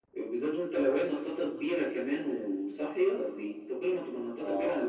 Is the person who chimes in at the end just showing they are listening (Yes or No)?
No